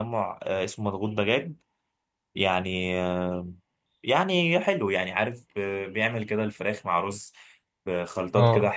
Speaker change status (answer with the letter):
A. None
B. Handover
A